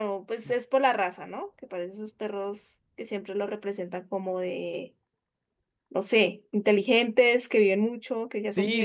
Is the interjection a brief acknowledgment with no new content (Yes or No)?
No